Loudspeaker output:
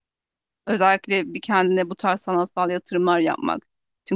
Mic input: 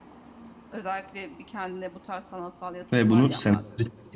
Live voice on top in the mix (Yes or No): Yes